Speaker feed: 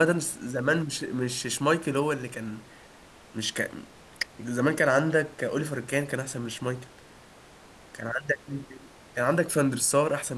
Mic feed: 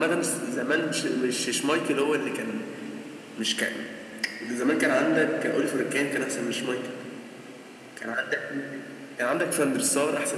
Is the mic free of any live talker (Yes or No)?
Yes